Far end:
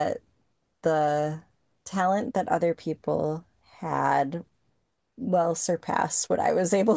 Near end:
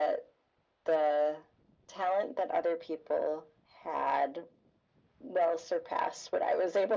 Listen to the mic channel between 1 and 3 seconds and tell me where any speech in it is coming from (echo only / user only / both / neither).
echo only